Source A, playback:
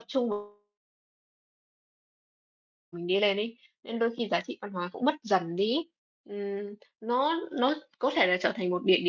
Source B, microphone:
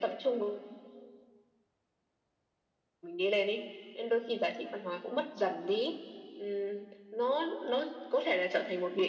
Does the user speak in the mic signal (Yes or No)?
No